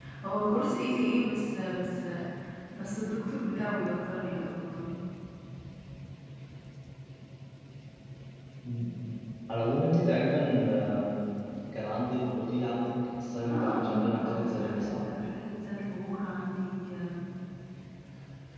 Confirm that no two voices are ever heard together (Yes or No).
No